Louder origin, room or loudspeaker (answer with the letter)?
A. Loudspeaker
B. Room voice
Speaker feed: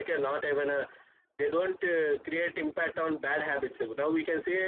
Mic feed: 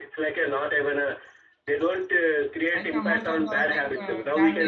A